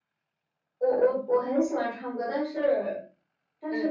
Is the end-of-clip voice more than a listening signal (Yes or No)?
No